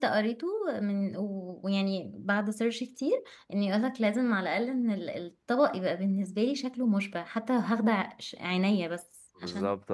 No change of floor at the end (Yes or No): No